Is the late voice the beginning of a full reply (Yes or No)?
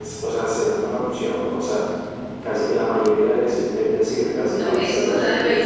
Yes